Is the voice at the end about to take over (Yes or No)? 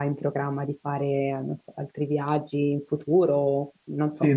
Yes